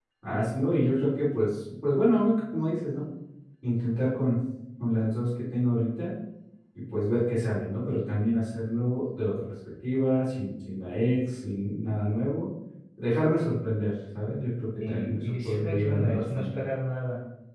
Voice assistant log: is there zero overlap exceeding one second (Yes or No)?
No